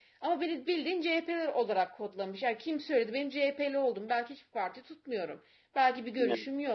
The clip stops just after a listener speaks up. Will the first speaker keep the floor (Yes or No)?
Yes